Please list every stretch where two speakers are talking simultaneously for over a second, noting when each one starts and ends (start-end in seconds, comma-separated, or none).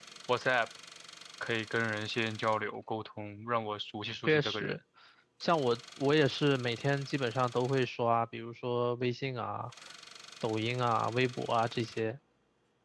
none